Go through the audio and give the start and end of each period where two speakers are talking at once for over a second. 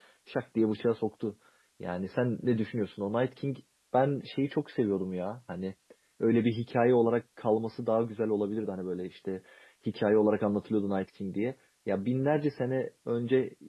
none

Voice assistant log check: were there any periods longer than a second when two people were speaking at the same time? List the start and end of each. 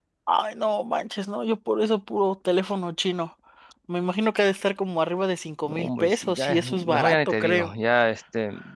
5.6-7.7

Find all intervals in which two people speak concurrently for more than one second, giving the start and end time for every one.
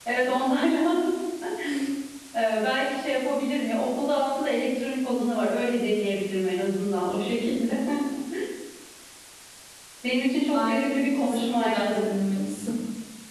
10.5-12.1

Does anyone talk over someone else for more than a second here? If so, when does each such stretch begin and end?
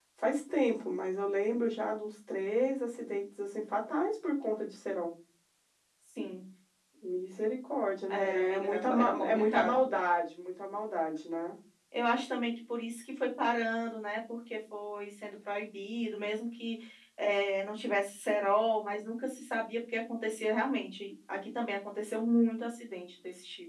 8.1-9.8

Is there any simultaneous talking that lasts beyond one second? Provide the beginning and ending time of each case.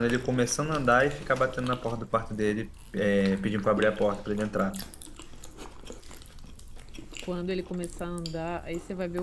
none

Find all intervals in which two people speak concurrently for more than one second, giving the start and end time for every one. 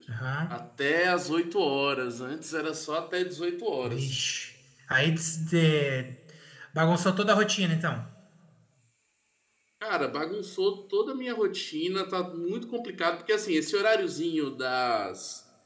none

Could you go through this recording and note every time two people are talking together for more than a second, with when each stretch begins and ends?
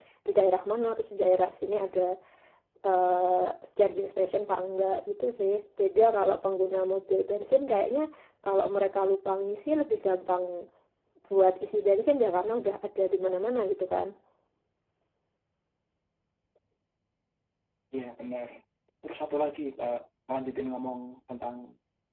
none

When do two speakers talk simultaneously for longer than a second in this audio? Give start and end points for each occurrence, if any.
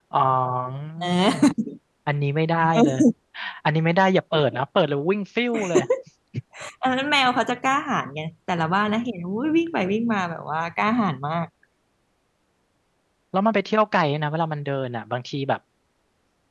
none

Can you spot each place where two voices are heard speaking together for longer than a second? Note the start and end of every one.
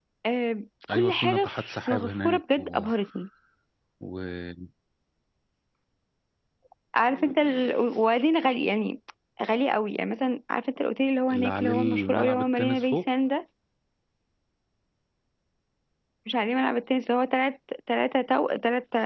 0.9-2.9, 11.4-13.0

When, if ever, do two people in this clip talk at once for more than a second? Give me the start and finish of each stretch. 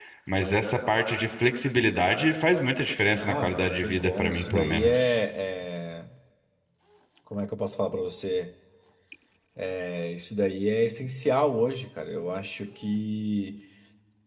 3.1-5.2

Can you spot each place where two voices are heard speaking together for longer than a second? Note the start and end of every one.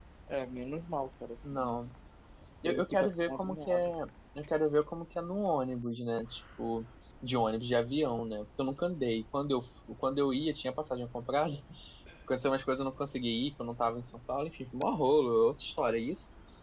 2.6-3.9

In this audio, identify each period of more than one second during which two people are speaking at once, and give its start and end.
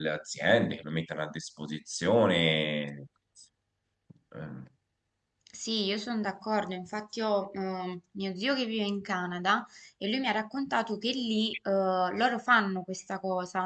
none

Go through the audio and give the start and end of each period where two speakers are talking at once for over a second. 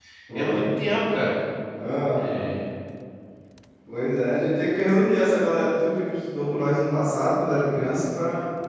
none

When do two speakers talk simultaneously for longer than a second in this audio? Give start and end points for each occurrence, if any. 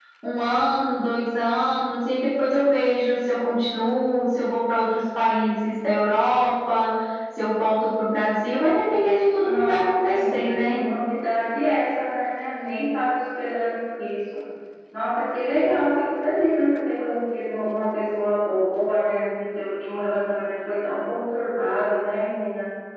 9.4-10.8

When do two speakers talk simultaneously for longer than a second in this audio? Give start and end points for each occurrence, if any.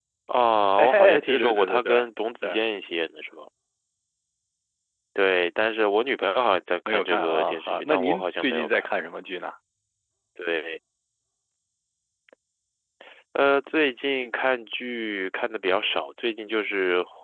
0.7-2.0, 6.9-8.9

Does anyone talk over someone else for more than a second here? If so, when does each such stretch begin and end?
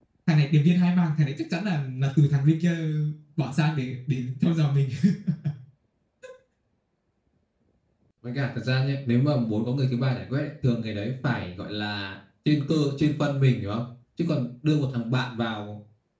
none

